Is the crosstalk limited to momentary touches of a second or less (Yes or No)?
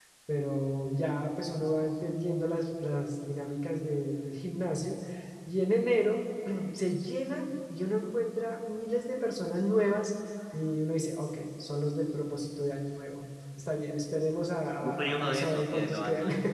No